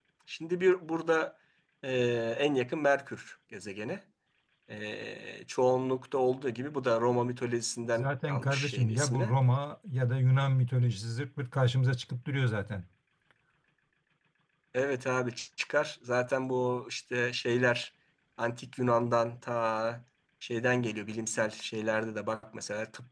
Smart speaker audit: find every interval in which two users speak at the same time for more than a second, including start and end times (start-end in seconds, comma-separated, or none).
8.0-9.3